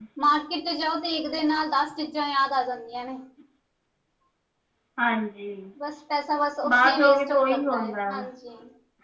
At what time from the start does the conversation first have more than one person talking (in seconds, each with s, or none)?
6.7 s